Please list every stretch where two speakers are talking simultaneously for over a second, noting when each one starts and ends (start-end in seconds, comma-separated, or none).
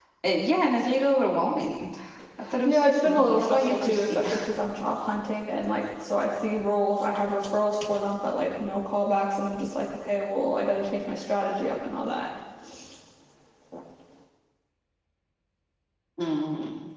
2.6-4.3